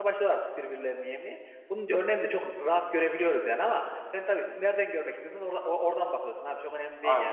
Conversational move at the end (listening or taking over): listening